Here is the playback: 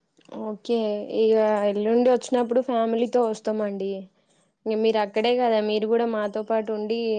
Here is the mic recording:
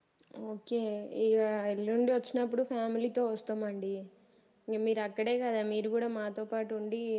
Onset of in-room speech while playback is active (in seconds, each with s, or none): none